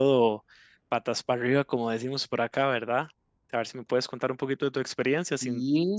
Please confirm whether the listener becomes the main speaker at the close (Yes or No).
Yes